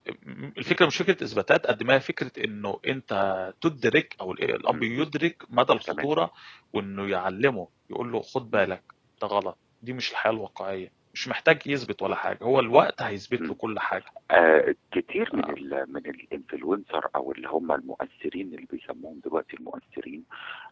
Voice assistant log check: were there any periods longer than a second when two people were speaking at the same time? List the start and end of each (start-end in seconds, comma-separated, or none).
none